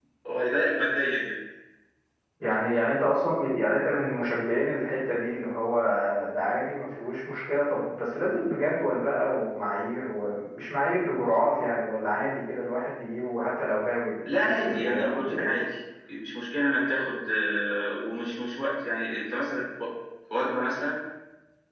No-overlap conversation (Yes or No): No